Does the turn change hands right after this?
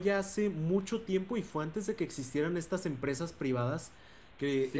Yes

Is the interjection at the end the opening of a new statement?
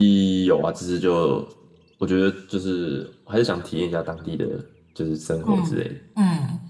Yes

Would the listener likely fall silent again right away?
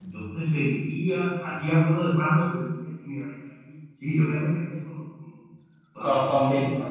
No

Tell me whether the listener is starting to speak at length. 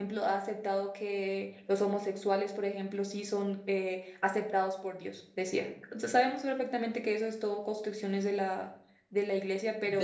Yes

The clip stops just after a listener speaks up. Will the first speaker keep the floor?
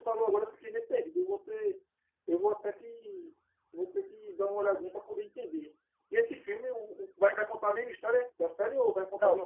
No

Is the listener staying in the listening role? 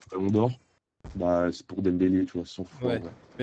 No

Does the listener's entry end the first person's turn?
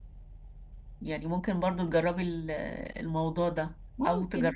No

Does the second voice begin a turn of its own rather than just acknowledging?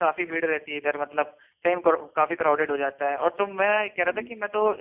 No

